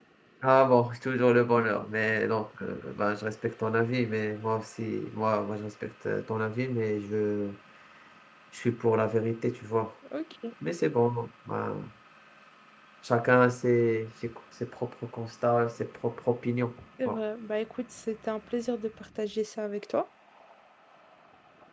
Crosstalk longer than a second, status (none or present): none